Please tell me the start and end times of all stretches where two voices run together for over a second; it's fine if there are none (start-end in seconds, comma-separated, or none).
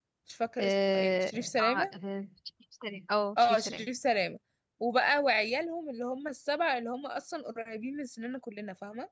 0.6-1.9